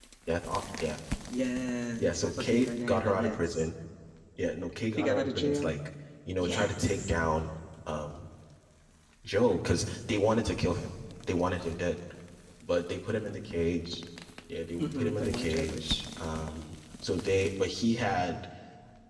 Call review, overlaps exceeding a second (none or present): present